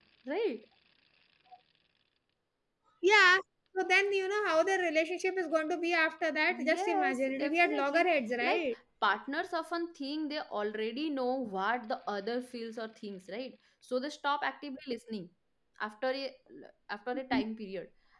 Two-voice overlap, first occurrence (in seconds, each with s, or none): 6.5 s